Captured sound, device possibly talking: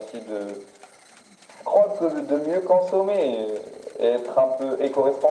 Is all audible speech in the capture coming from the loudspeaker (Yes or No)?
Yes